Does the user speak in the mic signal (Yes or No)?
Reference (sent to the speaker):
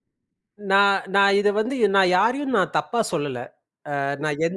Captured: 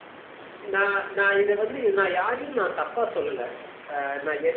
No